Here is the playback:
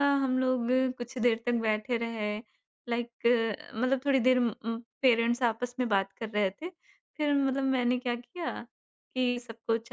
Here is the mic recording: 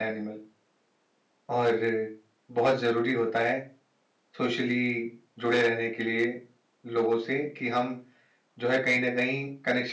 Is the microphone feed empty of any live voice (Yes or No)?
No